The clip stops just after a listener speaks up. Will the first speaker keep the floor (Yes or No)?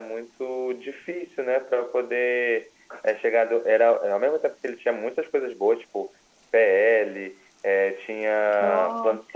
Yes